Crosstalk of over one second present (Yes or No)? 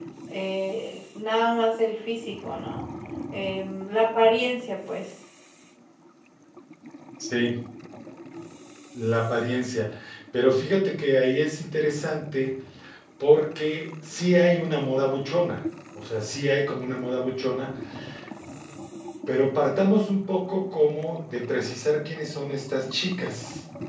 No